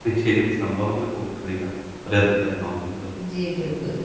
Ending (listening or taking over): taking over